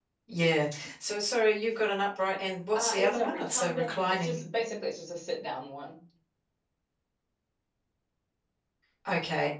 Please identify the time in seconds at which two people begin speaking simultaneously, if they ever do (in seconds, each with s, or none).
2.7 s